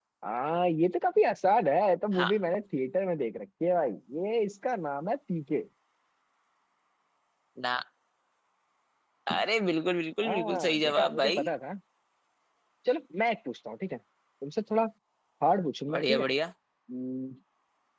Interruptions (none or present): present